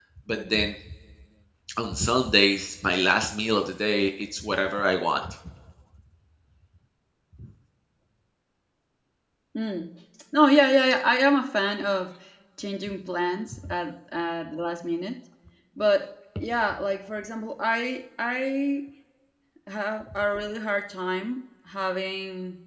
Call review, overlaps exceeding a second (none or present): none